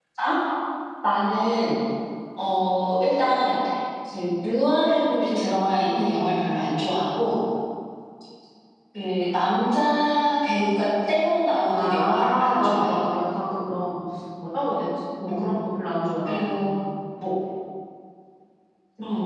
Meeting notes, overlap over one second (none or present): present